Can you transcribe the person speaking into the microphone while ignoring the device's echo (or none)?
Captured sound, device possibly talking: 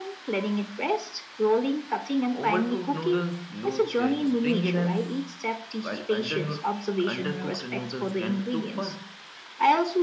Overcooked noodles lose their springiness, while underno- undercooked noodles can be too firm.